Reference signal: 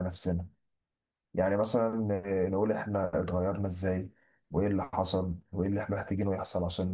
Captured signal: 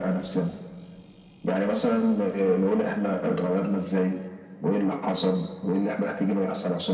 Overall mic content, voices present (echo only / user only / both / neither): echo only